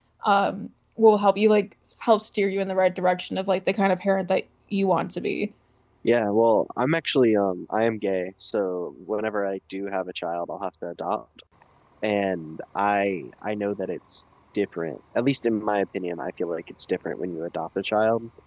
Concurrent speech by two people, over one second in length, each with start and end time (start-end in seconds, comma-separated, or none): none